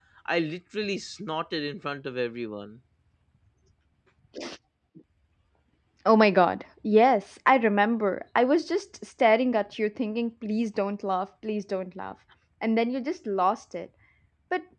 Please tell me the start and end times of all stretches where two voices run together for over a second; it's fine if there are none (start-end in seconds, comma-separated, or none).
none